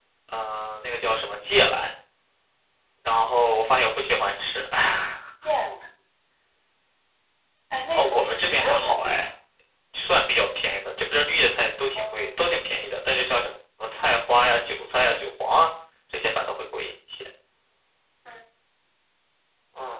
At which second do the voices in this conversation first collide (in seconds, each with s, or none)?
7.9 s